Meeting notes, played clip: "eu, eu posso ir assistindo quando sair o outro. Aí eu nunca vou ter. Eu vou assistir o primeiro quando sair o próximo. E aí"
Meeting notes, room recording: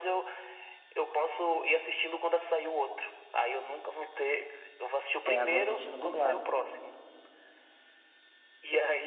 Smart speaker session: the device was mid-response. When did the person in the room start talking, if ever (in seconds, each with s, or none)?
5.2 s